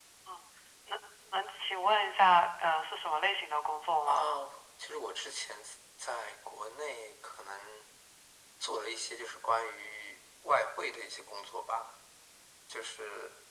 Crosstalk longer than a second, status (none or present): none